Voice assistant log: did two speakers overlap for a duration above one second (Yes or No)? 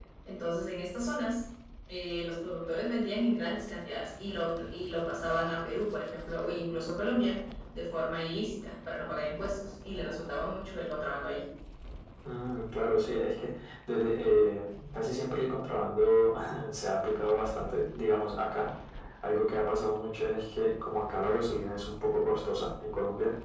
No